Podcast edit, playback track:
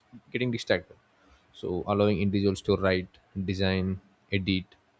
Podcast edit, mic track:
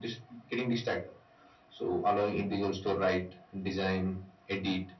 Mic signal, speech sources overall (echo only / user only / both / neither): echo only